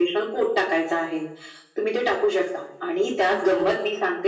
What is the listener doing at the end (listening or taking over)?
listening